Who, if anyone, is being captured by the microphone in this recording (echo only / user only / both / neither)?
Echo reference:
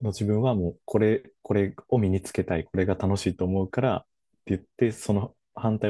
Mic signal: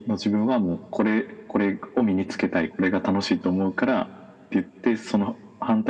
echo only